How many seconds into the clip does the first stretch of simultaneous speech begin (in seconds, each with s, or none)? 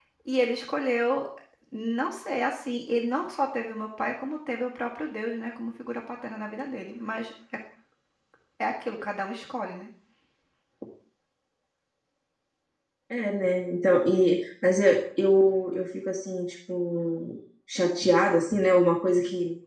none